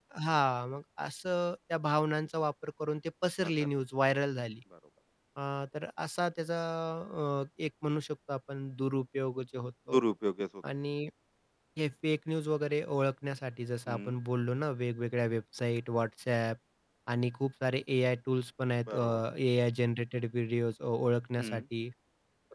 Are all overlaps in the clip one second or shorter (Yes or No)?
Yes